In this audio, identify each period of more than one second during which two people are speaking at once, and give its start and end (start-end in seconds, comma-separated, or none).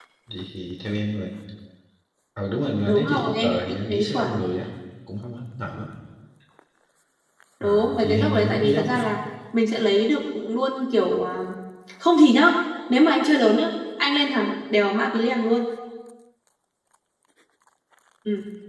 2.9-4.4, 7.6-9.1